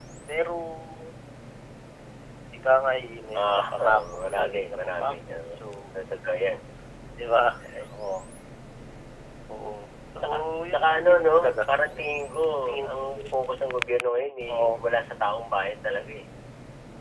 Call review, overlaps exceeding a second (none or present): present